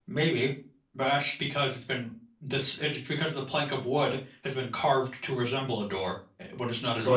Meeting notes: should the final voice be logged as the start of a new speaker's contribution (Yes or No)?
Yes